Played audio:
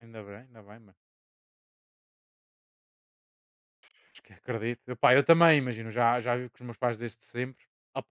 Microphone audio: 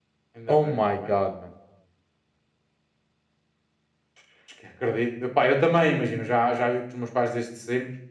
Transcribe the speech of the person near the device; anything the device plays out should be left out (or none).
Oh my god, mano.